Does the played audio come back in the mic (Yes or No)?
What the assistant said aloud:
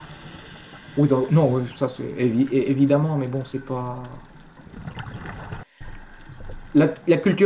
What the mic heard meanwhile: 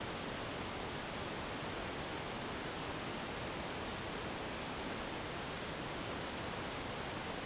No